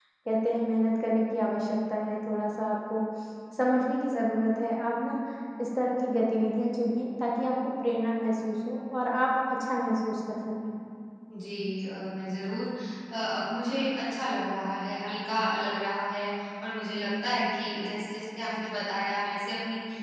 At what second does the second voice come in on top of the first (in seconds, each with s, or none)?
none